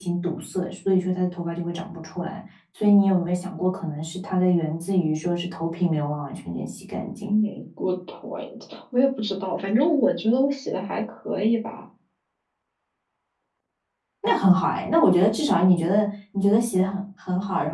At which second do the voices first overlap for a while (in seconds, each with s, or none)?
none